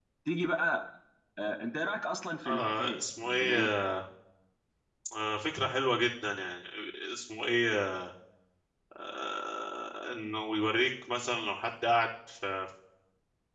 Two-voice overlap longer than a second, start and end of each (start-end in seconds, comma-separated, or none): 2.4-3.7